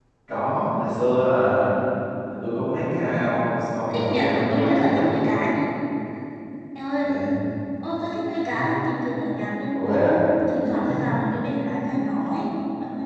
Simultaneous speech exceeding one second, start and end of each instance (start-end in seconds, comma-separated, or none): 3.9-5.3